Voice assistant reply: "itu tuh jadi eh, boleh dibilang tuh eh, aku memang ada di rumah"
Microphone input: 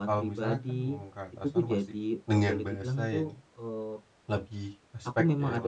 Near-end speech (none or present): present